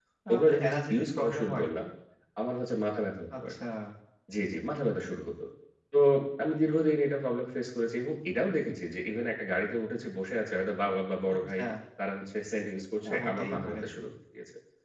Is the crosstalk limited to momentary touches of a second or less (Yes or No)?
No